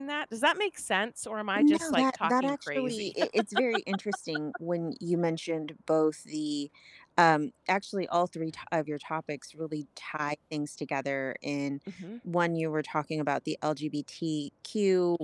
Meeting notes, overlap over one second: present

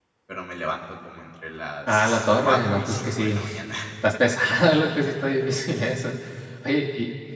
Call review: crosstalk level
present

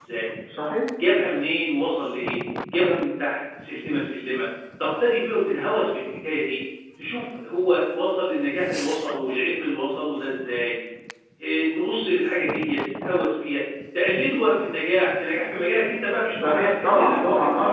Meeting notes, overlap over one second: present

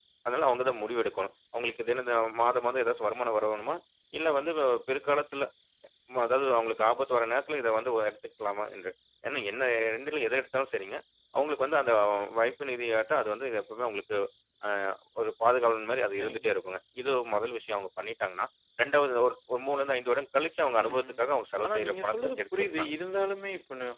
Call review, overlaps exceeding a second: present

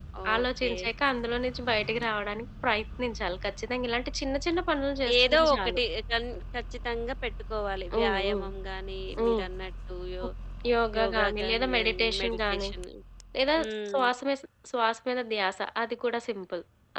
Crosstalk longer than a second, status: present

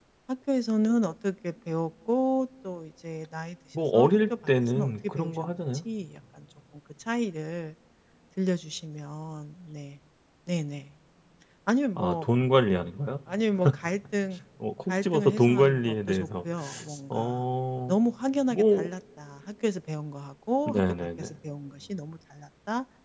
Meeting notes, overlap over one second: present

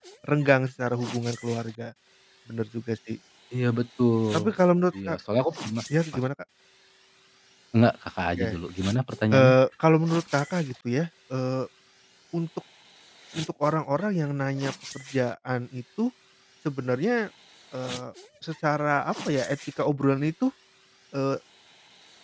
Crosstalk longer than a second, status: none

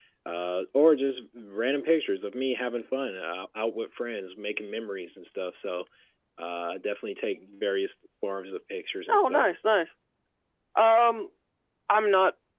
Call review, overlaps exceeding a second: none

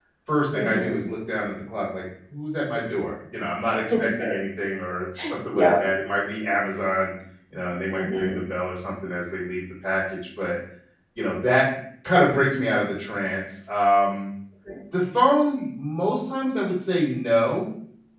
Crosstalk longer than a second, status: none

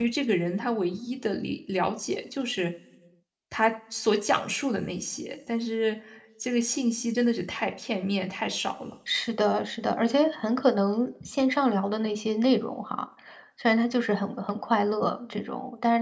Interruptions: none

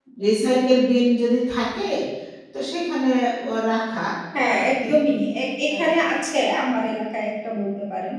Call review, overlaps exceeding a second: none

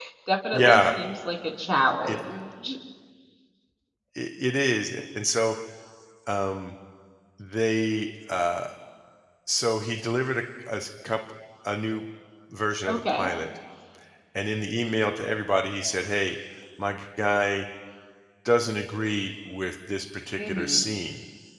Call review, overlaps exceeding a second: none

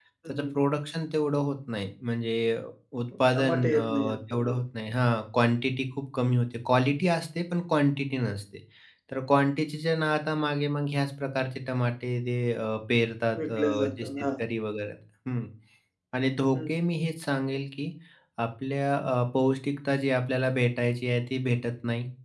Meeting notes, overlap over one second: present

